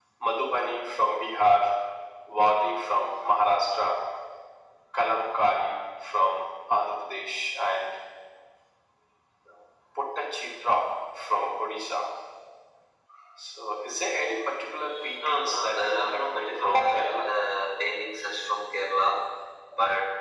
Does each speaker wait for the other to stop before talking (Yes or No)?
No